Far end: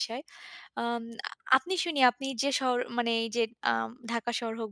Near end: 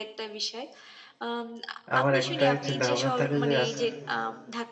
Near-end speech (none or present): present